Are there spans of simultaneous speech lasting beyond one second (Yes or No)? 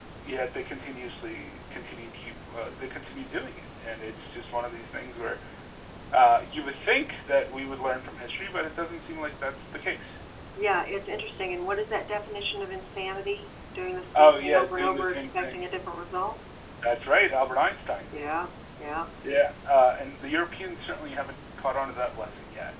Yes